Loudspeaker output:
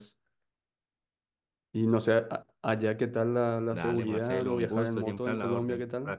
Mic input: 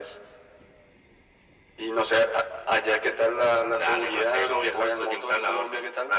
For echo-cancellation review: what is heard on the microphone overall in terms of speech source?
echo only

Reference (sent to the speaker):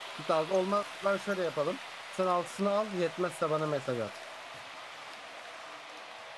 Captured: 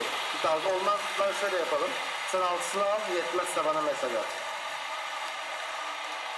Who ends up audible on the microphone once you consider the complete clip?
echo only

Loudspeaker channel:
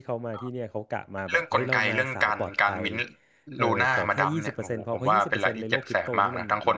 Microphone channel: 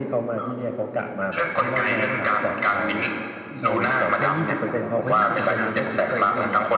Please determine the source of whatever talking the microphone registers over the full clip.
both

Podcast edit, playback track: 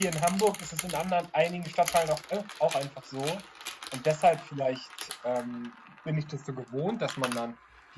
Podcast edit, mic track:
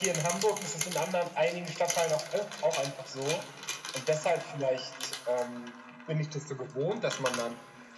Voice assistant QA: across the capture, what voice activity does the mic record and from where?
echo only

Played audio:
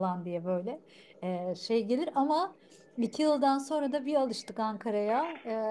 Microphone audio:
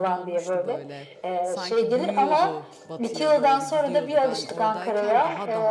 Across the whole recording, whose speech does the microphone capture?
both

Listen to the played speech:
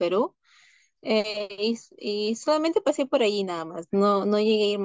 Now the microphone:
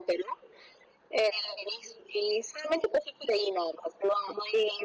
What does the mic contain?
echo only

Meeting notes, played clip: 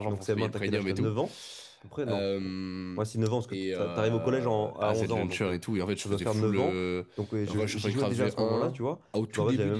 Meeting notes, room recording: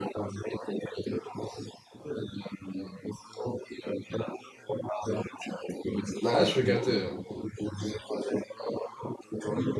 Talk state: both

